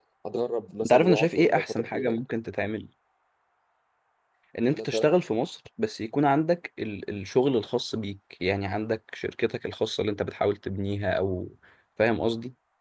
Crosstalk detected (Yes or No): Yes